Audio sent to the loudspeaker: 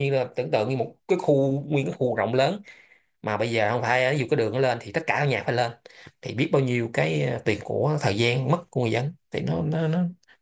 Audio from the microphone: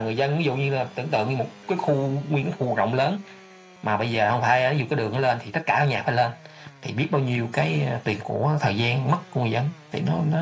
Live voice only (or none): none